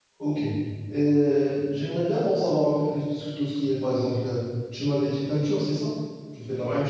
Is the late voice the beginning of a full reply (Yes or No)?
Yes